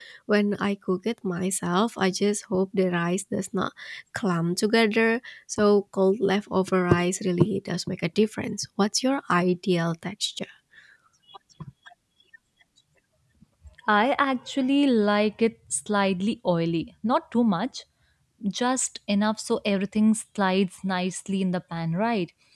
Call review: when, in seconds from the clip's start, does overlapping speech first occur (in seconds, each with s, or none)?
none